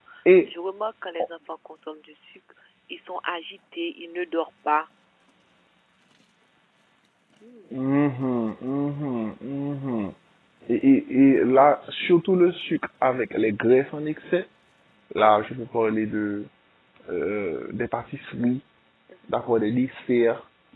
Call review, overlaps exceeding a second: none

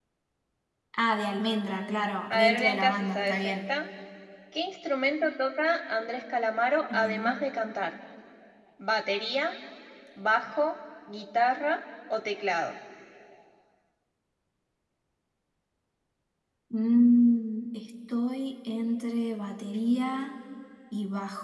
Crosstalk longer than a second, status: present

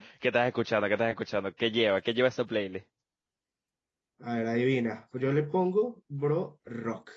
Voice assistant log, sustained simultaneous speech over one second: none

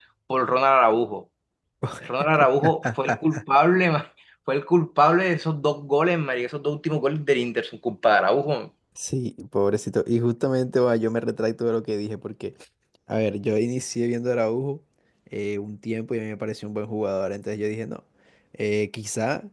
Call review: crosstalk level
none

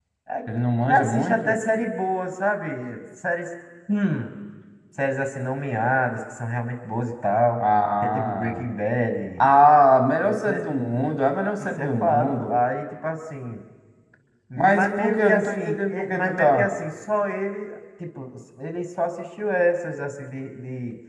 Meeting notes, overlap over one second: present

